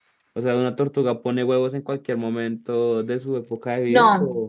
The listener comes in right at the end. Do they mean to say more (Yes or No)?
Yes